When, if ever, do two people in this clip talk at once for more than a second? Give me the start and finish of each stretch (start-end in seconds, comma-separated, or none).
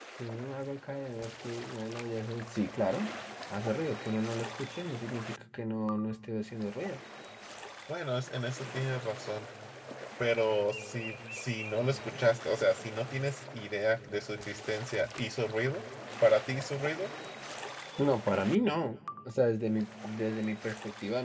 none